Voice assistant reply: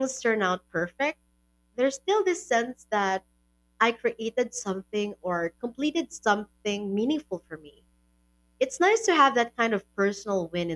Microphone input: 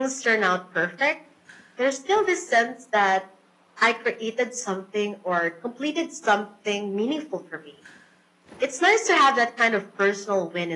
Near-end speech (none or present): none